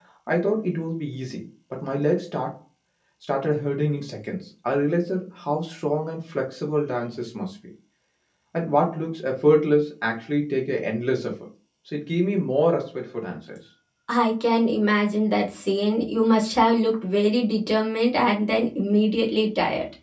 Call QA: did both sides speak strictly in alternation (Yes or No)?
Yes